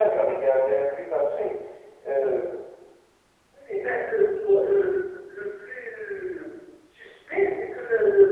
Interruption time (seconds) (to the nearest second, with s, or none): none